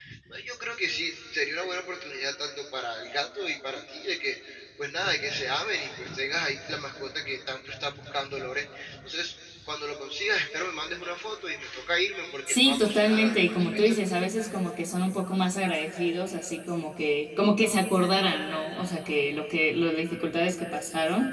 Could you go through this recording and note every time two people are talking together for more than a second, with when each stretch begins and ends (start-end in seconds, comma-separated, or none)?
12.5-14.0